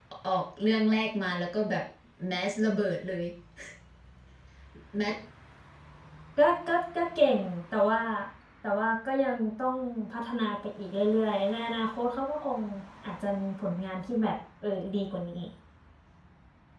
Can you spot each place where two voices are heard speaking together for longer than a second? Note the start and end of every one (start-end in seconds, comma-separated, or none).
none